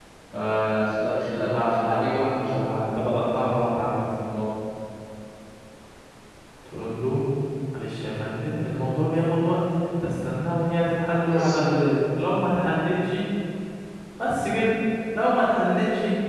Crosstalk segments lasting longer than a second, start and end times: 1.4-2.8

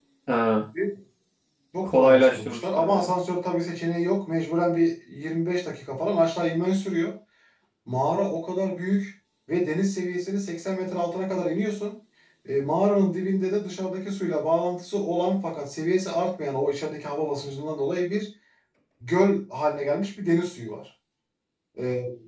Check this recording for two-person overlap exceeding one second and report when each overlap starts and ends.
1.8-3.1

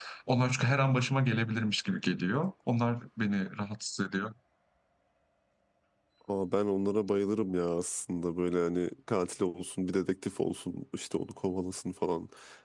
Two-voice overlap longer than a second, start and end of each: none

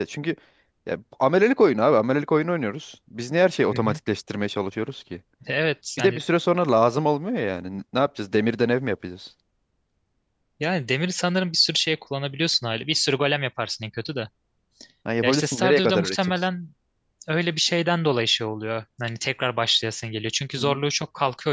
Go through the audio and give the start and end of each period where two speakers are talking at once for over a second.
15.2-16.4

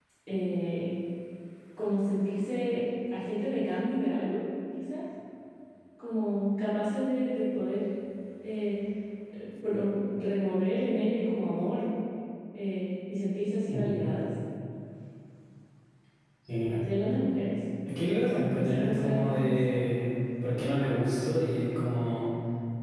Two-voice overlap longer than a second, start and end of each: 18.0-19.6

